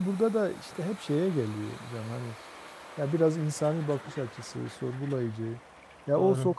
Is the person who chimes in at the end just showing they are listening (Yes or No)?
Yes